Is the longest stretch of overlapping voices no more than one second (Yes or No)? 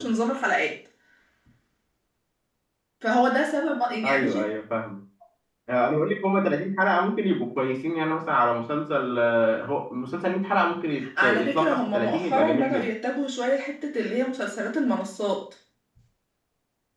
No